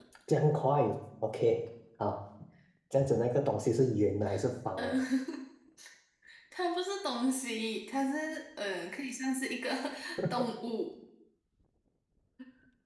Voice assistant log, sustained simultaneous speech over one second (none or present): none